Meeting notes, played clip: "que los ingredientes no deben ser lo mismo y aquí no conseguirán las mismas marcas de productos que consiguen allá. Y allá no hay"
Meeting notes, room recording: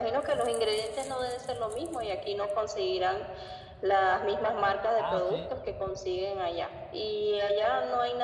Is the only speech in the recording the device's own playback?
No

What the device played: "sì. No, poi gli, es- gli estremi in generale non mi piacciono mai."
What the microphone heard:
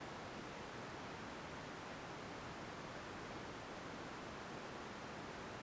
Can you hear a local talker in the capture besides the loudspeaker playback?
No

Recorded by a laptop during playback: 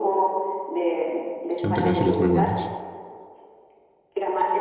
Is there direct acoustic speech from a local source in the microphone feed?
Yes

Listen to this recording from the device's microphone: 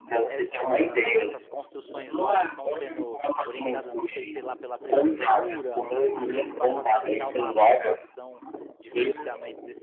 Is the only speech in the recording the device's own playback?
No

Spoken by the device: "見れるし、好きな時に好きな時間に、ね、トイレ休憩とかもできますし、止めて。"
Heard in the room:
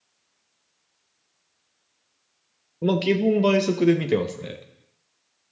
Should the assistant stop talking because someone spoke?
Yes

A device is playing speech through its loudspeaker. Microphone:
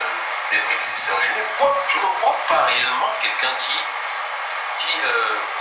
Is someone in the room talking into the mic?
No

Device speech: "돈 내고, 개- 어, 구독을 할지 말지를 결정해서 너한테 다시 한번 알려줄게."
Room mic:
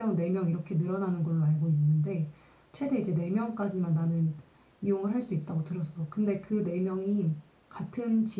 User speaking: Yes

